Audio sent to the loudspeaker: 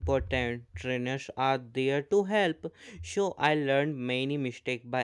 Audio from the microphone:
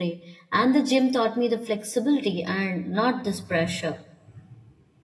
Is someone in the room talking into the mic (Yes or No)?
Yes